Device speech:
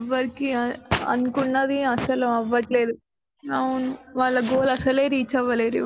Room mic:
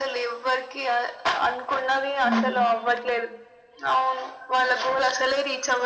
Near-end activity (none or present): present